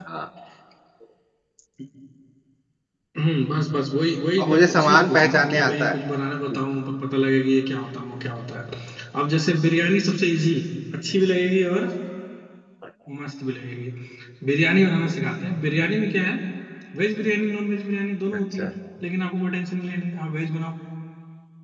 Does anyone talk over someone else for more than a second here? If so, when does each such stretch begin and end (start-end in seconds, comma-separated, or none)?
4.4-5.9